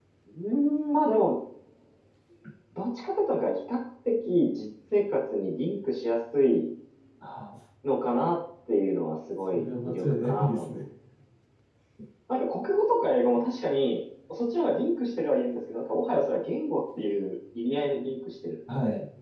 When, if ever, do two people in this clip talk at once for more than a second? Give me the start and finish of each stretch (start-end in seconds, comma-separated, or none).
9.4-10.7